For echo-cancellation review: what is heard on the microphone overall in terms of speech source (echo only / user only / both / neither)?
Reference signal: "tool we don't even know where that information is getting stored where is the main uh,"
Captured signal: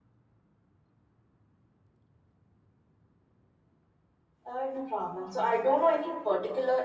user only